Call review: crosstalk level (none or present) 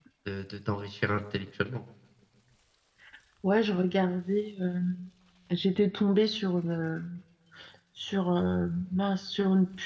none